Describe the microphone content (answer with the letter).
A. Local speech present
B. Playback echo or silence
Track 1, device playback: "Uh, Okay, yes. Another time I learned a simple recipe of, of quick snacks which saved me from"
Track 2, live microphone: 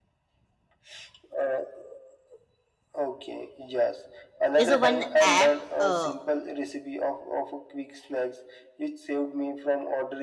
A